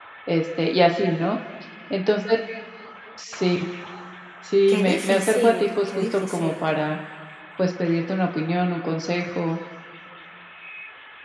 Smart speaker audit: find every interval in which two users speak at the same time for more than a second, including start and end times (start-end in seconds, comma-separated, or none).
4.7-6.7